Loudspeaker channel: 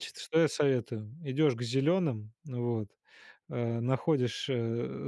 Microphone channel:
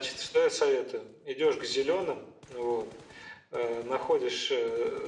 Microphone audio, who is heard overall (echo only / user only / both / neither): echo only